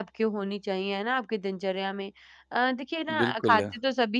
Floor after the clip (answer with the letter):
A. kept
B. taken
A